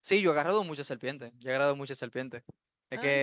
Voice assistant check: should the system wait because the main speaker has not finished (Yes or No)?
Yes